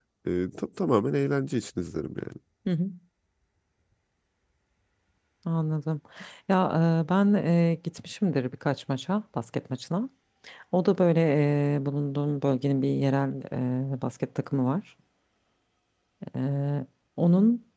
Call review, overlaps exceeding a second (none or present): none